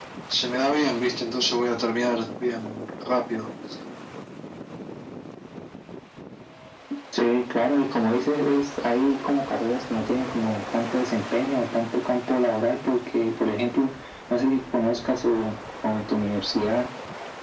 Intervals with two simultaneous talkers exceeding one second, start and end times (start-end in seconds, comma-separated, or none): none